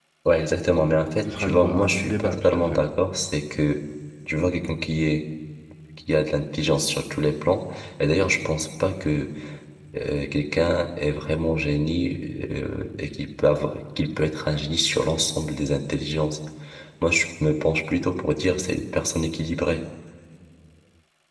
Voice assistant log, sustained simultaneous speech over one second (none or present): present